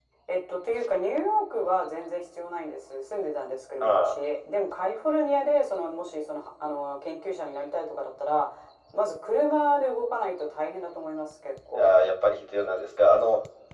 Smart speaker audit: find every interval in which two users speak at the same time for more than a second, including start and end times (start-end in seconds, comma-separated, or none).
none